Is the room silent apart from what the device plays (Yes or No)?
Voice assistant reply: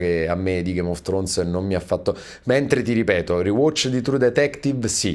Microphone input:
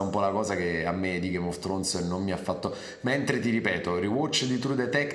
Yes